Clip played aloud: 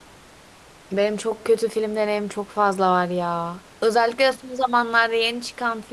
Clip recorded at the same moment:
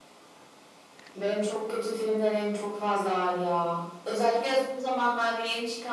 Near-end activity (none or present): none